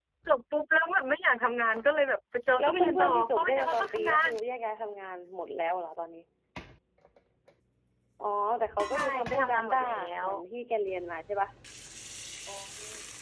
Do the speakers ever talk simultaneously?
Yes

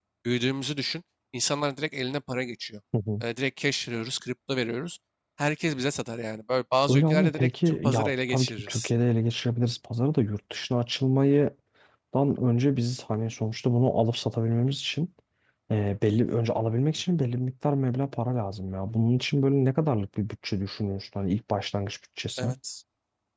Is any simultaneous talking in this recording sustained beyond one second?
Yes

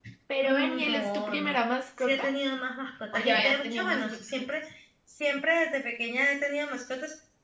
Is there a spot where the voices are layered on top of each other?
Yes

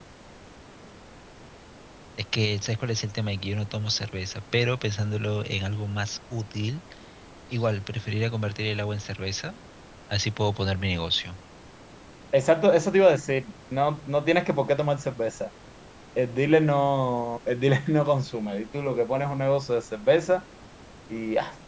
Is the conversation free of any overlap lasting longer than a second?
Yes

